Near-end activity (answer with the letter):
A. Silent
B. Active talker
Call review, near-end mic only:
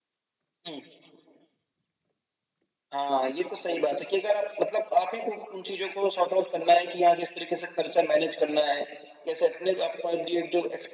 A